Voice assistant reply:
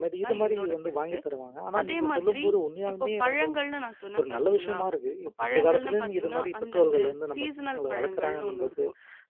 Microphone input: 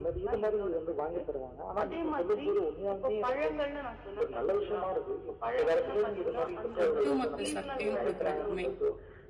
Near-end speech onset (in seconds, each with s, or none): 6.8 s